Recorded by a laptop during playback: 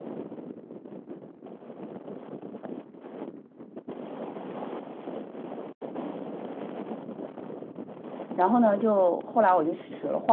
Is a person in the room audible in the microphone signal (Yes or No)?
Yes